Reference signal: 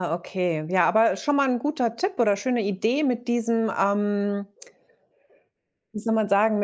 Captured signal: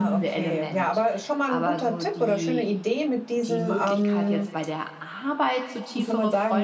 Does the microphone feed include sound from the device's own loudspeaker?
Yes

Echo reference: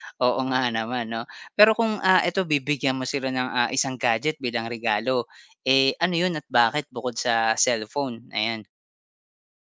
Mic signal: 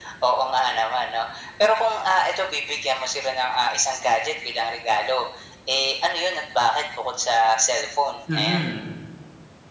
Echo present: Yes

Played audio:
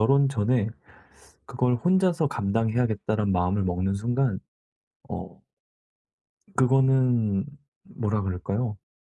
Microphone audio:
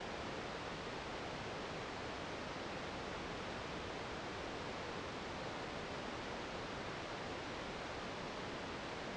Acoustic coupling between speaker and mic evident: No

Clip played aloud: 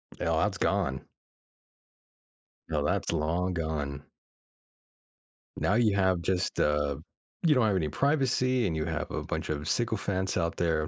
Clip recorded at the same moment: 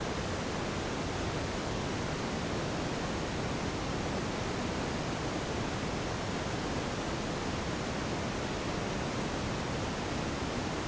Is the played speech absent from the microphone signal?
Yes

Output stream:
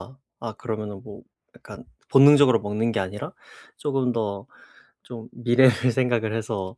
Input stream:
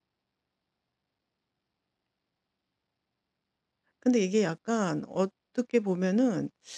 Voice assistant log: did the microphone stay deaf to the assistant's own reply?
Yes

